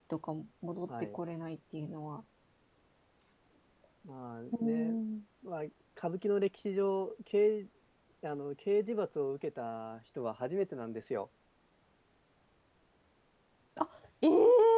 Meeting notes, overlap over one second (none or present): none